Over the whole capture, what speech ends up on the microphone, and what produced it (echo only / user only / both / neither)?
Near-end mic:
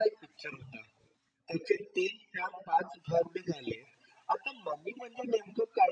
echo only